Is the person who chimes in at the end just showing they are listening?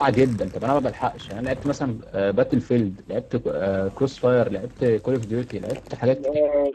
No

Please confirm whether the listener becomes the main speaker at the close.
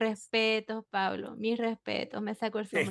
Yes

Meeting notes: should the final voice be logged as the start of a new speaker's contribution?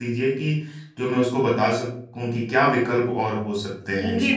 Yes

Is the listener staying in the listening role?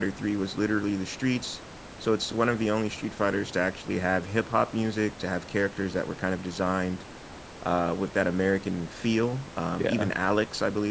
Yes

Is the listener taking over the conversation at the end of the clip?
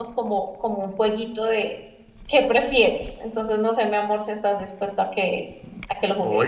Yes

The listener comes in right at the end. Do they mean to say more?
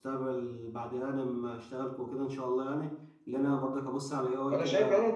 Yes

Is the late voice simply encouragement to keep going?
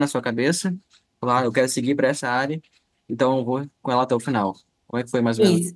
No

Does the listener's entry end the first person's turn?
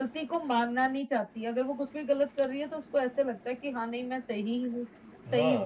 Yes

